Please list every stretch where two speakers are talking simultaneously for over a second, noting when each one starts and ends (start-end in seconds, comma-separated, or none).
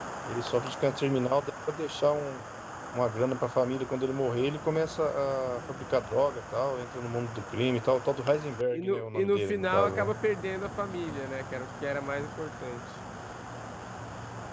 8.7-10.1